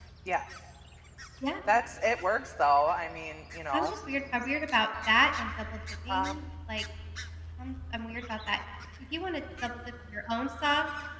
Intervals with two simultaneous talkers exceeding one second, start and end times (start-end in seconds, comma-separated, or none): none